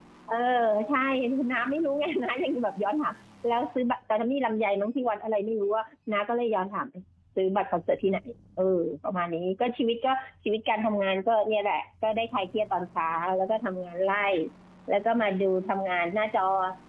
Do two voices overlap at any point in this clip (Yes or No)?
No